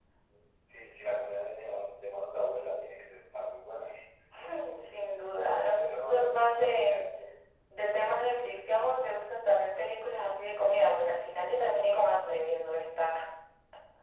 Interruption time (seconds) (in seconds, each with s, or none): 5.6 s